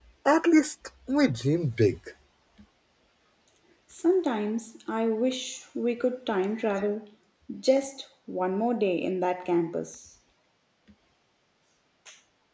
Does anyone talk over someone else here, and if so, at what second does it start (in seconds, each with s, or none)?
none